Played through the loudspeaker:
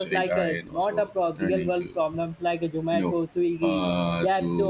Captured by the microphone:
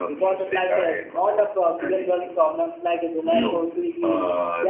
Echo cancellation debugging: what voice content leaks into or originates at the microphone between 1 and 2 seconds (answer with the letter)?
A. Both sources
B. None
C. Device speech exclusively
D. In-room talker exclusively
C